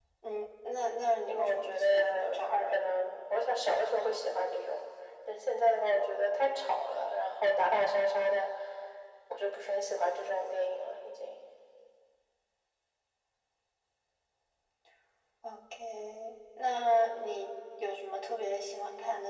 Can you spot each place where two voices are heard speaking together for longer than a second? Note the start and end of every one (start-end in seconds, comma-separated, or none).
1.3-2.8